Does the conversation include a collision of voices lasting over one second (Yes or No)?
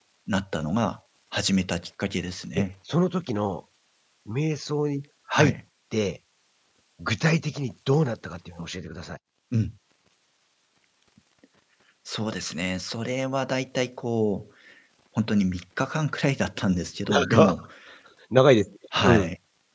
No